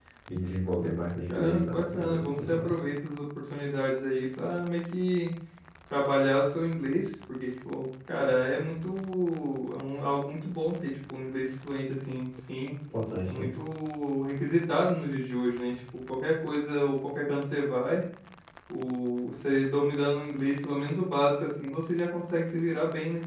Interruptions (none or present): present